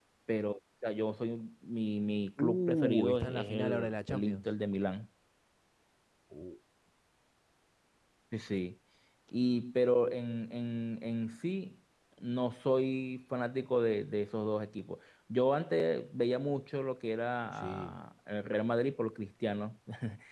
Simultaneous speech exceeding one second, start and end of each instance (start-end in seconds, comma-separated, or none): 2.4-4.4